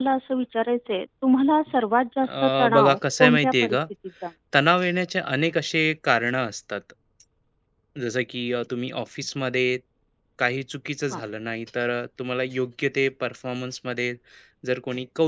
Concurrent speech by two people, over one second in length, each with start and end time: 2.4-3.8

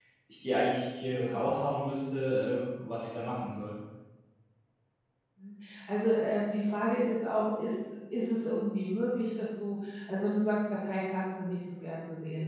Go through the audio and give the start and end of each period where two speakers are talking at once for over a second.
none

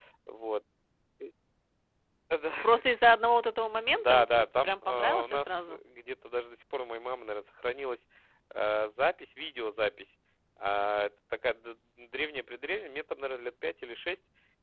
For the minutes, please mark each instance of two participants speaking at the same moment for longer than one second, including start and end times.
3.9-5.8

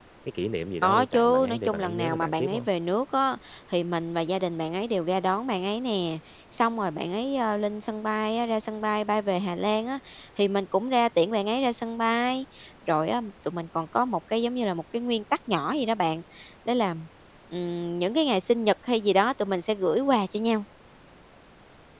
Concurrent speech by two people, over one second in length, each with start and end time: 0.8-2.7

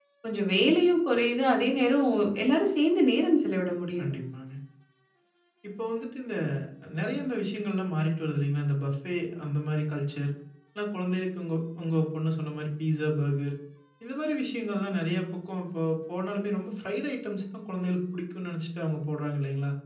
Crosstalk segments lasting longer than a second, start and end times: none

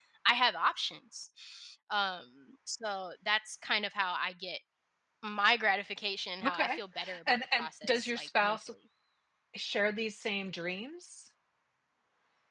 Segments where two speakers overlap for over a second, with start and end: 7.3-8.6

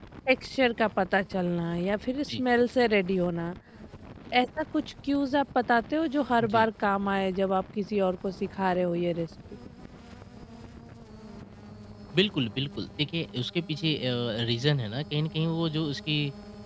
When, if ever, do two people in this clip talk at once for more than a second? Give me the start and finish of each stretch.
none

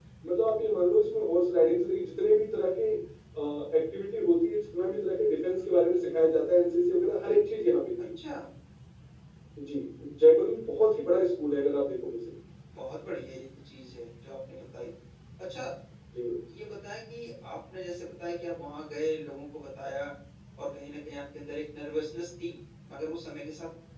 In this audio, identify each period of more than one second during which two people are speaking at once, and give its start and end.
none

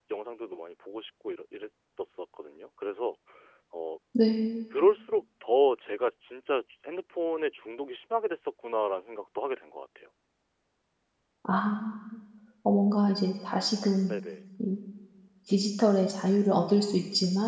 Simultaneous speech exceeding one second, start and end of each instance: none

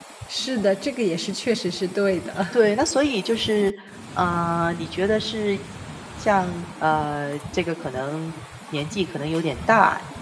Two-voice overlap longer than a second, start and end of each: none

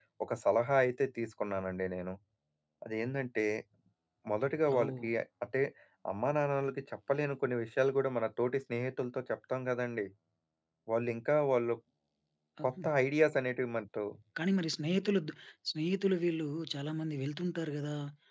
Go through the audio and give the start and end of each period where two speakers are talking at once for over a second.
none

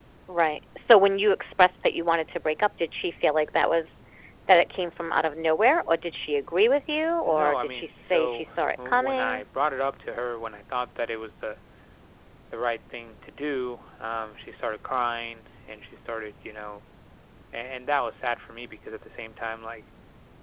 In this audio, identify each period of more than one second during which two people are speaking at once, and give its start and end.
7.2-9.4

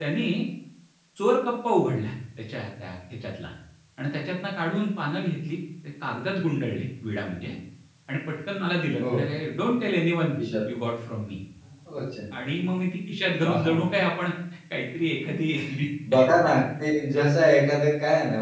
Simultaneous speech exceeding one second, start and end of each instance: none

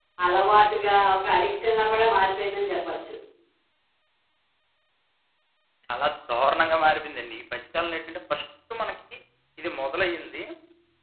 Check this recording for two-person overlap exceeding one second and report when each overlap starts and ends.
none

